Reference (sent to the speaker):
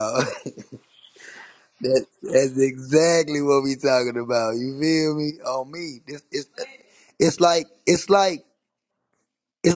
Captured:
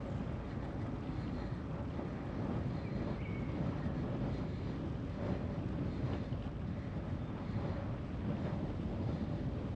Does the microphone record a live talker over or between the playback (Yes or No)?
No